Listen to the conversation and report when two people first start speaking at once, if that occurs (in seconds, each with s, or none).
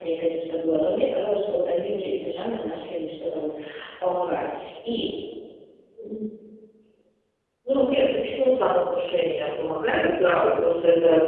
none